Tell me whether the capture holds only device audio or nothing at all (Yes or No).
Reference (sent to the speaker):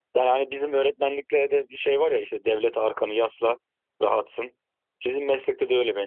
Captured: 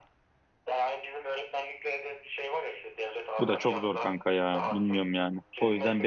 No